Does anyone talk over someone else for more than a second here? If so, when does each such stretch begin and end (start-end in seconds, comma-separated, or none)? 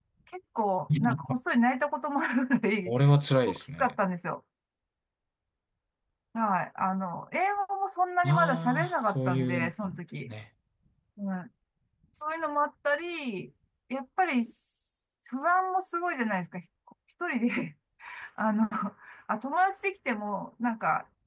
8.3-9.7